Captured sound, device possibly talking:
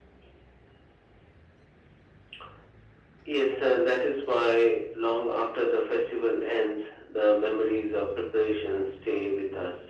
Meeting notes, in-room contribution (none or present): none